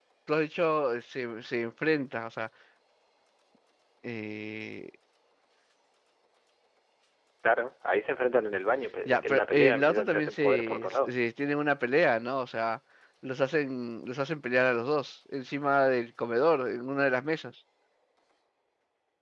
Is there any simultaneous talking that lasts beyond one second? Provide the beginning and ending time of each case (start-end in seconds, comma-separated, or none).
9.1-11.1